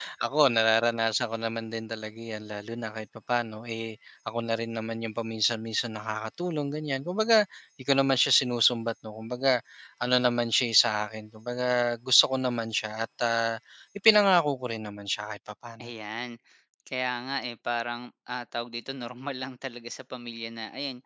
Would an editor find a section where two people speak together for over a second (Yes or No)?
No